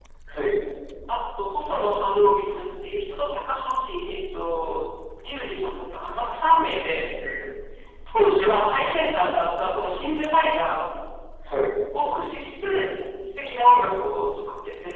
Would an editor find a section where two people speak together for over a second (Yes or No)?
No